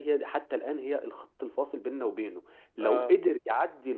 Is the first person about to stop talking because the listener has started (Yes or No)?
No